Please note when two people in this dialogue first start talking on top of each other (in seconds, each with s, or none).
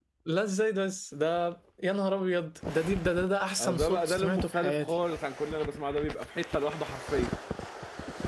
3.6 s